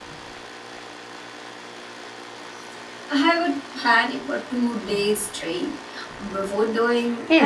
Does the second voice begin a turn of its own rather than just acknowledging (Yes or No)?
Yes